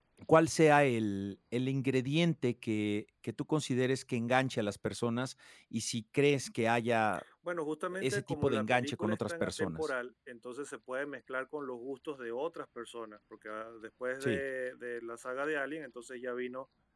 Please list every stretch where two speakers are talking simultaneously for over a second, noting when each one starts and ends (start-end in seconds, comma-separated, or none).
8.0-9.9